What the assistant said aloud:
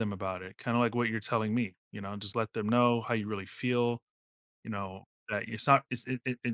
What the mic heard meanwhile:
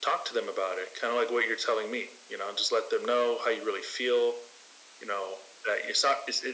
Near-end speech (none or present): none